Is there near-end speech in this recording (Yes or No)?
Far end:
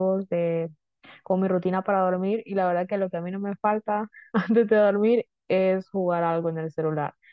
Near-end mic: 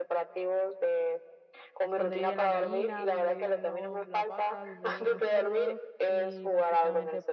Yes